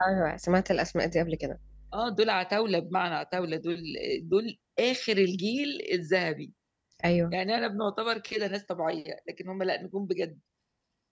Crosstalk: none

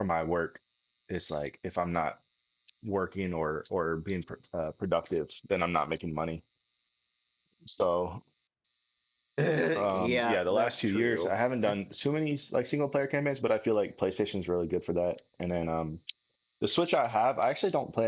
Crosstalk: present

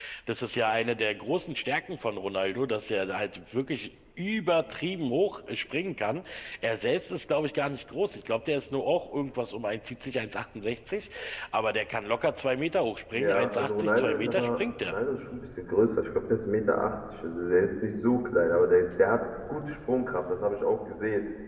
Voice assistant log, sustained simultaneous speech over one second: present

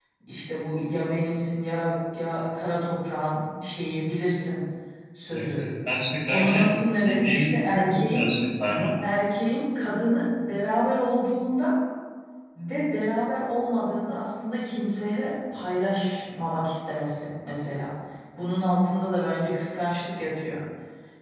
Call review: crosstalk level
present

